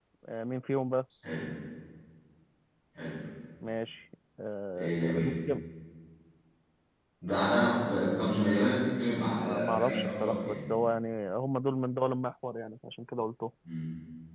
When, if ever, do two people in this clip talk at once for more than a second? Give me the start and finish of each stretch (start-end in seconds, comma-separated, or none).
9.2-10.6